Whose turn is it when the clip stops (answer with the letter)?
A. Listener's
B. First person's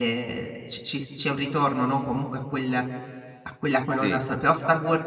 B